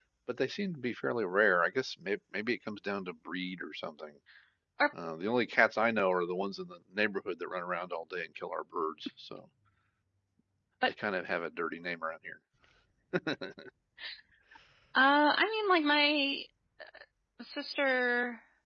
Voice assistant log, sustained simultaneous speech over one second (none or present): none